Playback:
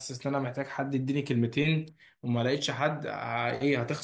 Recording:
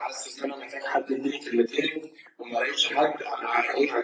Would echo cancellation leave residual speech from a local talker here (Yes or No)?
No